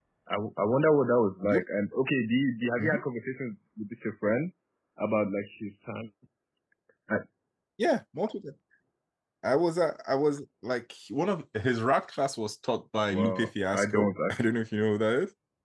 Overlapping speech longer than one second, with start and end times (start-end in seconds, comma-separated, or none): 13.1-14.5